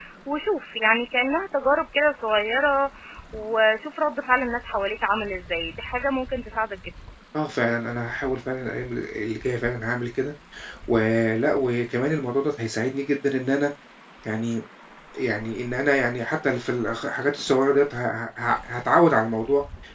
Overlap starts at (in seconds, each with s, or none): none